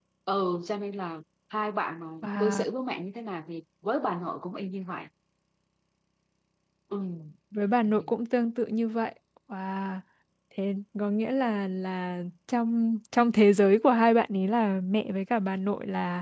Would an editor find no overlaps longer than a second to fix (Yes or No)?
Yes